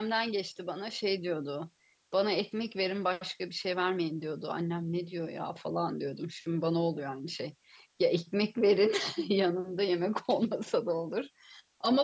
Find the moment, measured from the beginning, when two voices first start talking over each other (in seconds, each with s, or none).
none